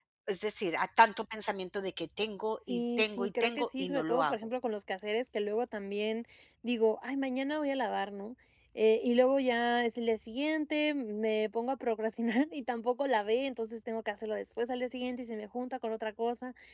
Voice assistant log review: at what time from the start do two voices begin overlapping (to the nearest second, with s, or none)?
3 s